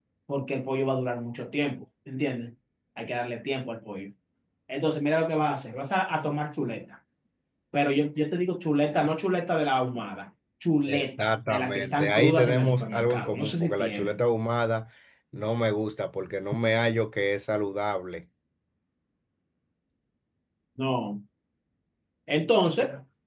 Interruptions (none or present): present